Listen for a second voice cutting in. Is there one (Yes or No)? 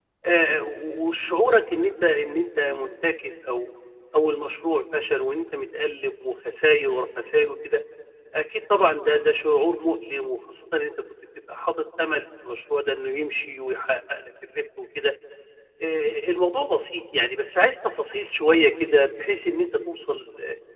No